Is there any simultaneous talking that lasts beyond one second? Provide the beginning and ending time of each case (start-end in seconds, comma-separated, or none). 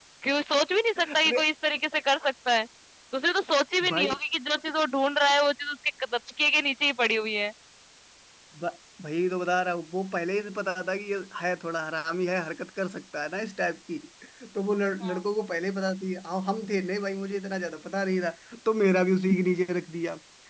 none